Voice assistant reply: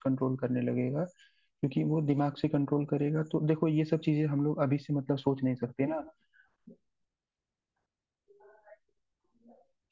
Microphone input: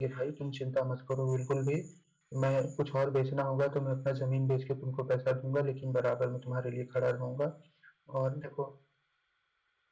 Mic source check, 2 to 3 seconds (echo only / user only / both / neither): user only